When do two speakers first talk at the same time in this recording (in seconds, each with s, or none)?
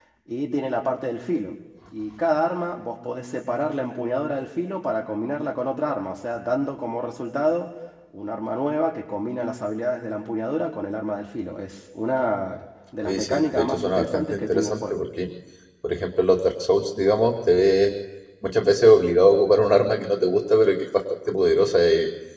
13.0 s